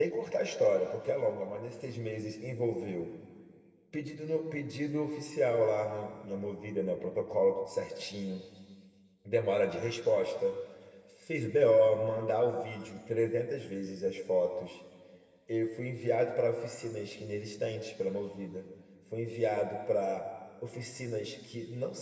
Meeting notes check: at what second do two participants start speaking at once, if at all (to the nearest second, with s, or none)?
none